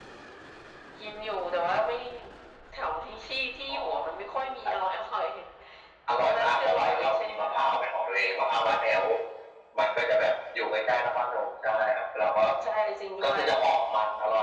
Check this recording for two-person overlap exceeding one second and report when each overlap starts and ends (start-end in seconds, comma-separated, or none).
6.2-7.6